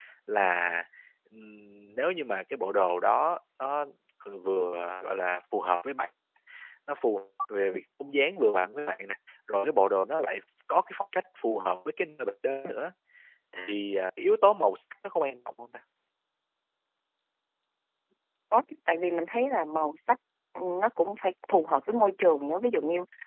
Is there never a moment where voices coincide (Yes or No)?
Yes